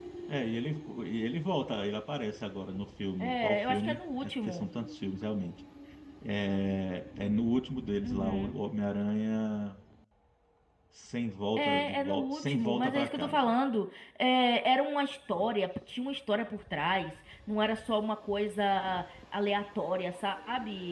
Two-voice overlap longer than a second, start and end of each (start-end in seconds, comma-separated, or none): 3.2-4.7, 11.6-13.5